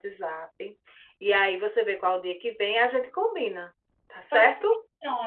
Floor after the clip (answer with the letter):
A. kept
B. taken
B